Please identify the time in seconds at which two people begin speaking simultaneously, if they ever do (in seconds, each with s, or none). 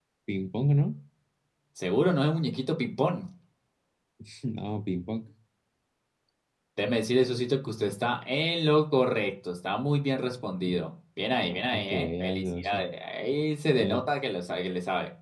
11.4 s